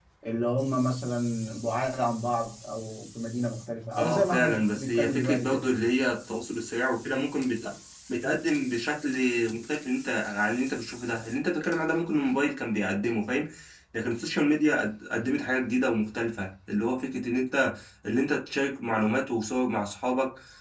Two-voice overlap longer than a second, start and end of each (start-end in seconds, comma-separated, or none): 4.0-5.6